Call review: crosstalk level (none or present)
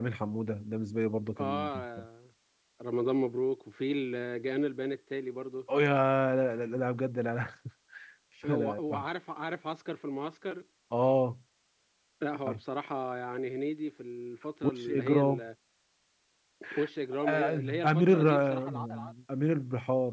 present